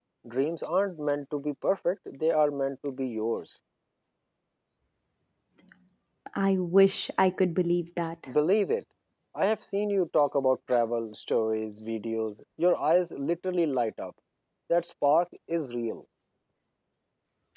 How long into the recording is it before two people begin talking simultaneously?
none

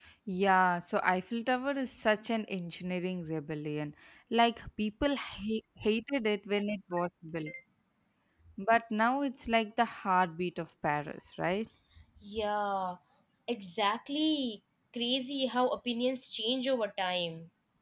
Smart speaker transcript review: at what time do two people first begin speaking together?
none

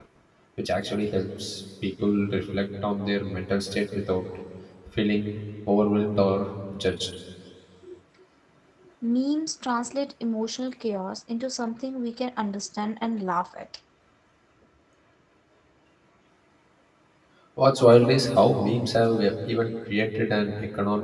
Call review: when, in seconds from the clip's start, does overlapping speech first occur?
none

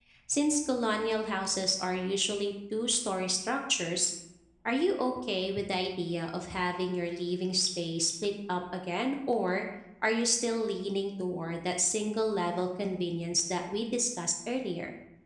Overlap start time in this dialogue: none

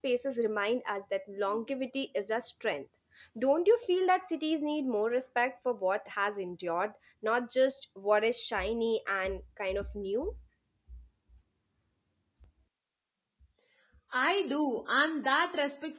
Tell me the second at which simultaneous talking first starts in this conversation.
none

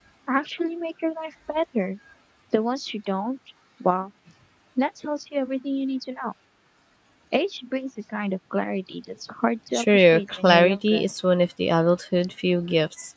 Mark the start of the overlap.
9.7 s

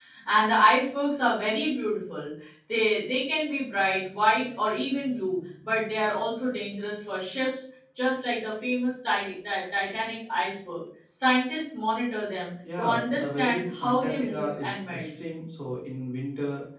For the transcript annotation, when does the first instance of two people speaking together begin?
12.6 s

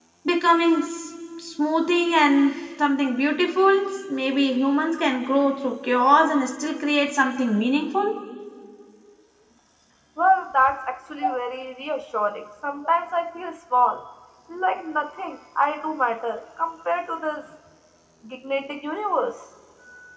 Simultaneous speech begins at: none

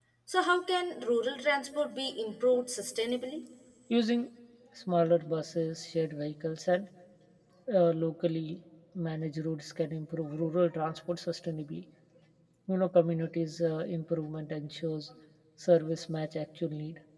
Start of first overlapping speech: none

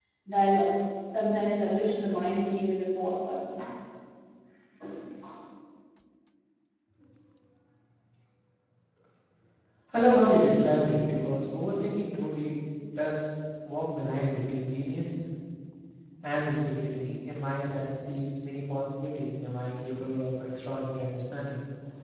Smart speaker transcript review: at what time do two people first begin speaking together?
none

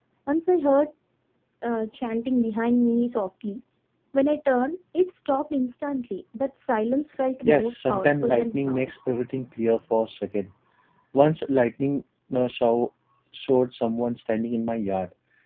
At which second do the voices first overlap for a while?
7.4 s

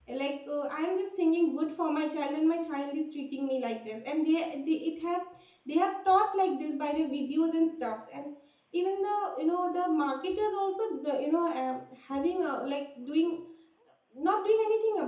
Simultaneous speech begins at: none

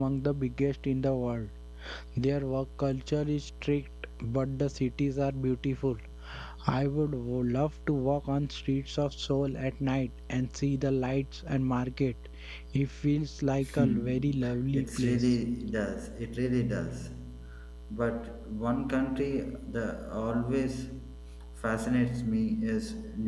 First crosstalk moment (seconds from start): 13.6 s

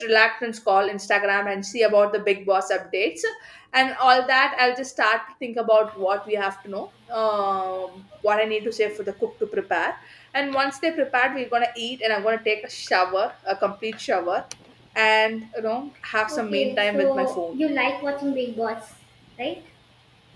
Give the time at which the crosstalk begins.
16.3 s

